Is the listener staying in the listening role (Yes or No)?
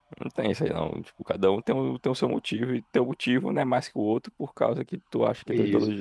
No